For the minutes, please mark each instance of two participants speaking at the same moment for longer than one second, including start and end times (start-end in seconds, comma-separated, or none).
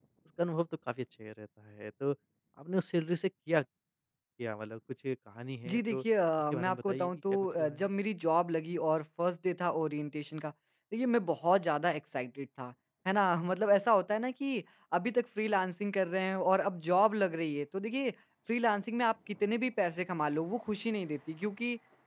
6.5-7.9